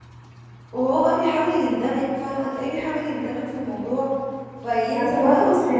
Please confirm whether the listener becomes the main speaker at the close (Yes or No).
Yes